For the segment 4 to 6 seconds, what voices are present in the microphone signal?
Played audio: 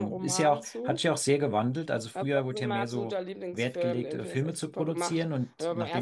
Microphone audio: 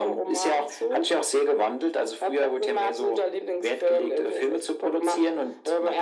echo only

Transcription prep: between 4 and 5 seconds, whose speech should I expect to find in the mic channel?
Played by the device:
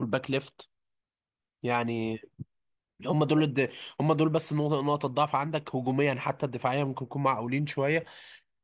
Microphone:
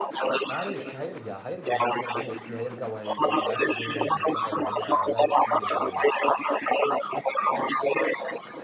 both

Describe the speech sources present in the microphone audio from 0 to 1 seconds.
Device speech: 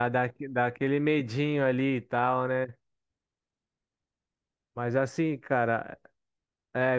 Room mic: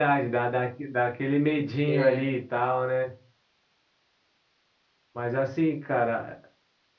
echo only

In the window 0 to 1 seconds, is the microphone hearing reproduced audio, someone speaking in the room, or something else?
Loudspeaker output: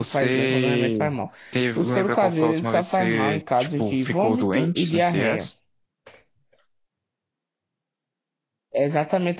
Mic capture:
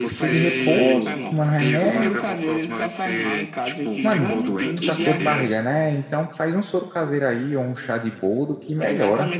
both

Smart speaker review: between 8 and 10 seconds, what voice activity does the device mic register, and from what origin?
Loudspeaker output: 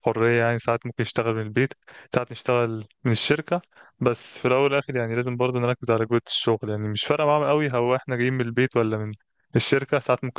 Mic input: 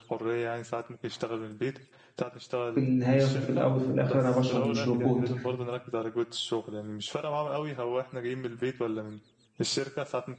echo only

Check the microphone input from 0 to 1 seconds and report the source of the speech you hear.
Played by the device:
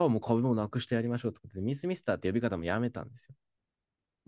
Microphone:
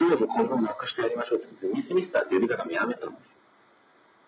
echo only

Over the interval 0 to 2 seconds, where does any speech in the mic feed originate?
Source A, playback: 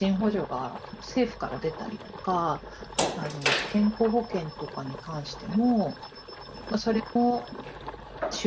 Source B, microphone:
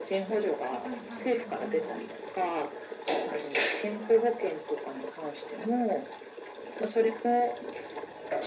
both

